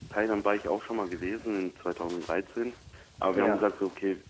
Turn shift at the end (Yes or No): No